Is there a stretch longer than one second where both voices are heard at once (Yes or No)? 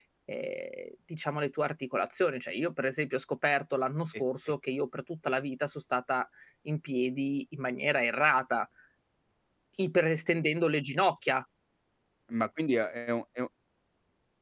No